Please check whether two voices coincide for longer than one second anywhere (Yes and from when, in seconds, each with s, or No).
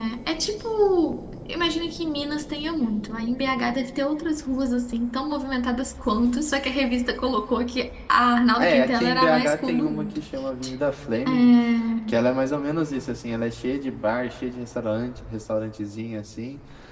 Yes, from 8.6 s